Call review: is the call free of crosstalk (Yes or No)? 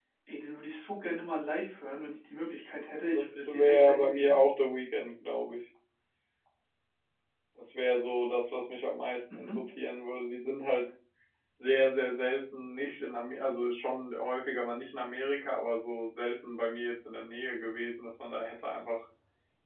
No